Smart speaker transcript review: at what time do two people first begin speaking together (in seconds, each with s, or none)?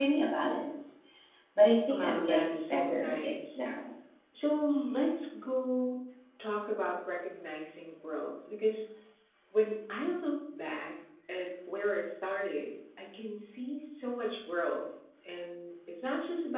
2.0 s